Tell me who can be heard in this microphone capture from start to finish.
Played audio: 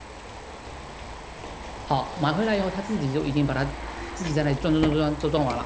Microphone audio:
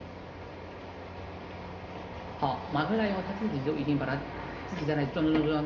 echo only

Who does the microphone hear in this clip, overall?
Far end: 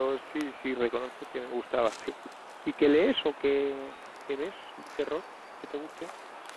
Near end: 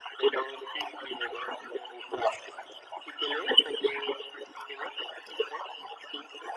echo only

